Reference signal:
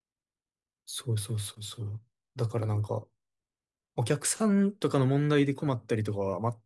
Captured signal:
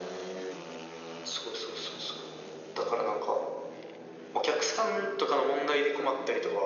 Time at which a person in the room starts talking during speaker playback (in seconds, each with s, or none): none